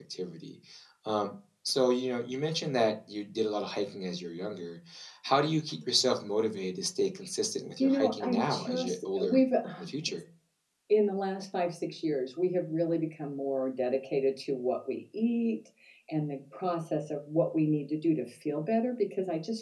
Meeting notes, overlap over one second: present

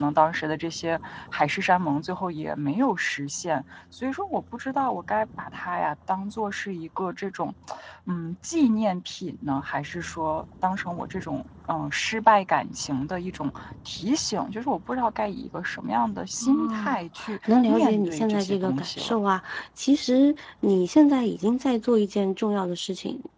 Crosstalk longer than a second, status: present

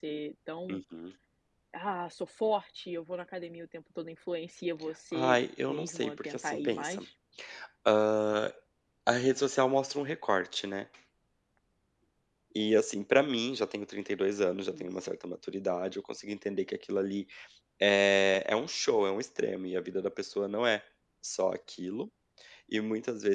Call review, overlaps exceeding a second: present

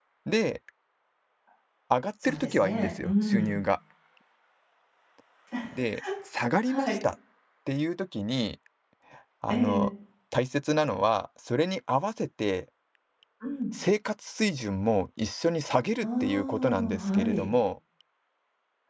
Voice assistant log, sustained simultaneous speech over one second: present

